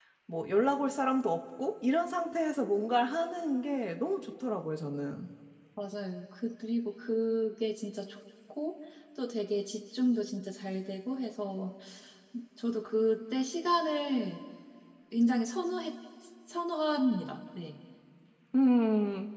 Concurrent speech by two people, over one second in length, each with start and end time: none

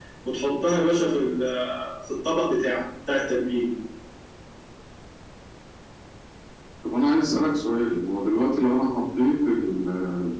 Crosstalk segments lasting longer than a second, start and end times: none

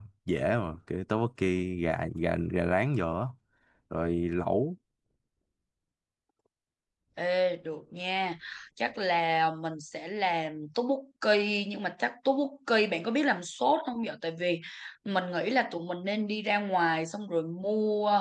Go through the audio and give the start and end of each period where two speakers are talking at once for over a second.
none

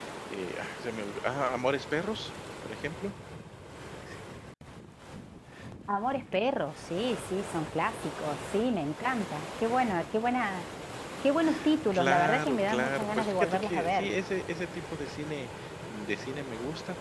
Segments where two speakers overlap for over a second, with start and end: 11.9-14.1

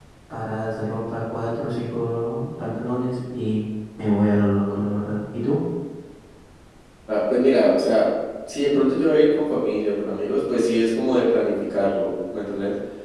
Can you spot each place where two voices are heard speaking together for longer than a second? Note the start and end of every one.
none

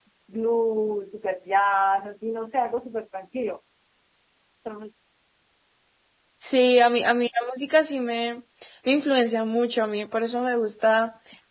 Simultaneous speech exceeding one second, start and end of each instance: none

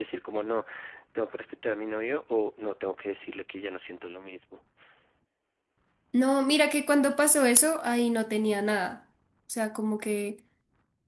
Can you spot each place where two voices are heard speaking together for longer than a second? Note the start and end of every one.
none

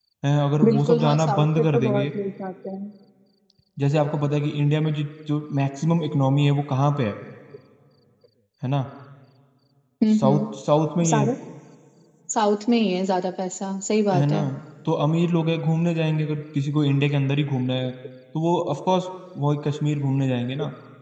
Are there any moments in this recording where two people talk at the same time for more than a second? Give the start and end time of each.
0.6-2.1

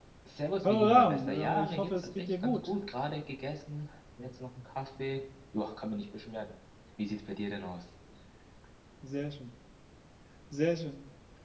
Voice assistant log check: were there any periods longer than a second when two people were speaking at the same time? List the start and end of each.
0.6-2.7

